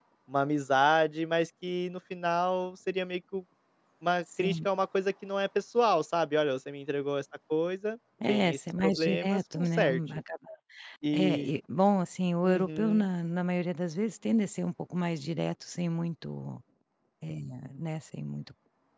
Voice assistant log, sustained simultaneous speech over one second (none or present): present